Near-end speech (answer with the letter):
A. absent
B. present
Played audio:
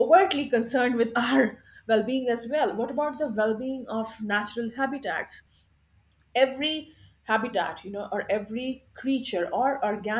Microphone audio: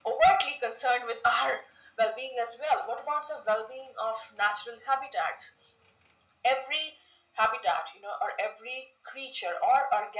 A